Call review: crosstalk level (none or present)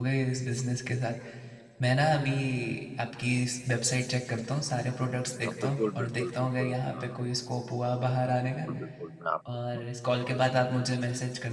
present